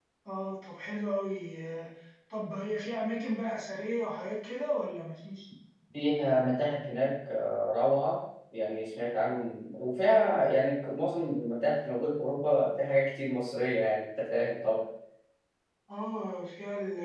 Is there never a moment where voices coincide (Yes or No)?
Yes